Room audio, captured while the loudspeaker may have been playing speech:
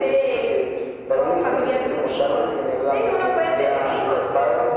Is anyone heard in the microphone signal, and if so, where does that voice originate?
echo only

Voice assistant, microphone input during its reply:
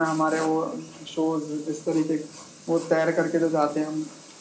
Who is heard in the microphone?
echo only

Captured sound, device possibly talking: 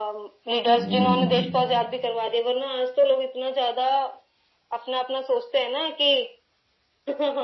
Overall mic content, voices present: both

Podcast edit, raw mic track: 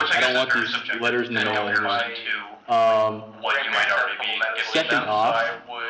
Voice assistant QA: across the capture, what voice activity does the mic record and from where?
both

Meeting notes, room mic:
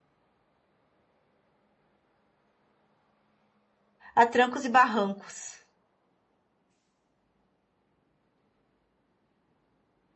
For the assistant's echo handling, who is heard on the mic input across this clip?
user only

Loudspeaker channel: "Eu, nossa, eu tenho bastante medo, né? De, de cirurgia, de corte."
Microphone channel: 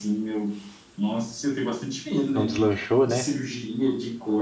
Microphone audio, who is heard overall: both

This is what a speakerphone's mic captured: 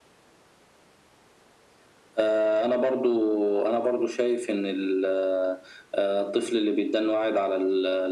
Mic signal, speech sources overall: echo only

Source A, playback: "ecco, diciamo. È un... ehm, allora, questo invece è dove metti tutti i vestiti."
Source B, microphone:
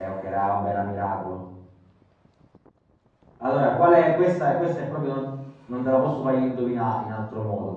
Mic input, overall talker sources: user only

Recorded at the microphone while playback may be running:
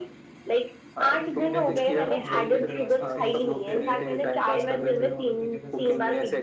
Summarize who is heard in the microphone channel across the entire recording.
both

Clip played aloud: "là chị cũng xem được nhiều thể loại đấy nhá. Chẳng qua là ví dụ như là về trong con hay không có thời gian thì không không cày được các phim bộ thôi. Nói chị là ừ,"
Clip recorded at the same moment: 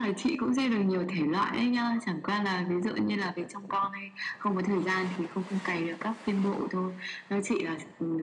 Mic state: echo only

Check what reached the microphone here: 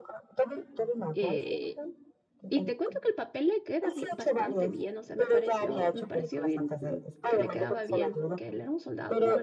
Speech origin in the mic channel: both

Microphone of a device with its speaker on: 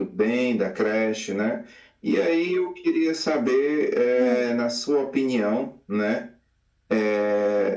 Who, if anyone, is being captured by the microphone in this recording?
both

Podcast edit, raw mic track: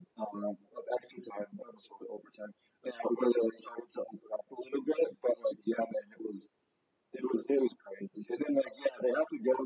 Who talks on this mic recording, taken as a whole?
echo only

